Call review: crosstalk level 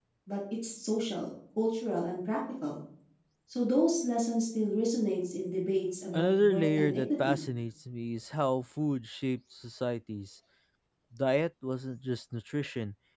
present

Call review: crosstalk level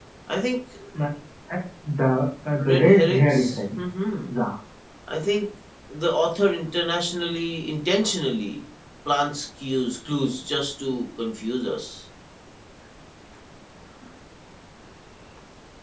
present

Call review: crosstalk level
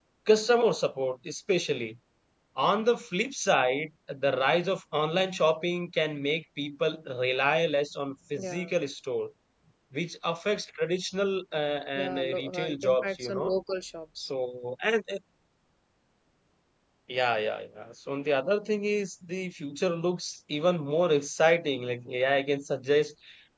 present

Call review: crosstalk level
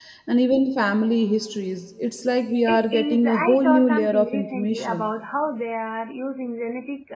present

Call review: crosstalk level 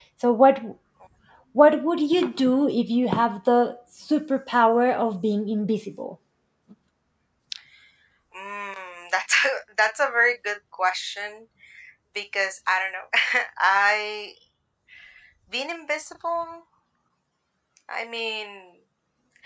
none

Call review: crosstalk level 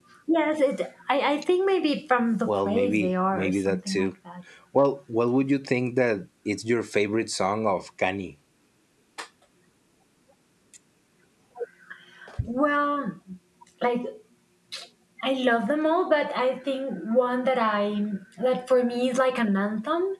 present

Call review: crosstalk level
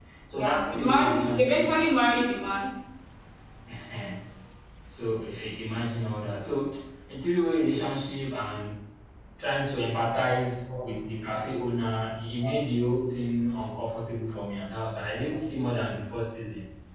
present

